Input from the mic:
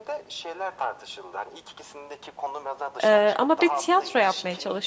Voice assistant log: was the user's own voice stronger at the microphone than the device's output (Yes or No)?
Yes